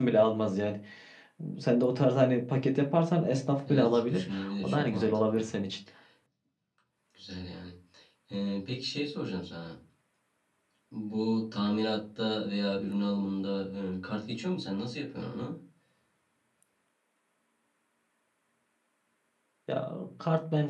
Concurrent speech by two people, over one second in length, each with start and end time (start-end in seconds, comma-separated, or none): 3.7-5.5